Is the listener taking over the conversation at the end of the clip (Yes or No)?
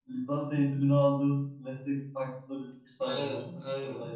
Yes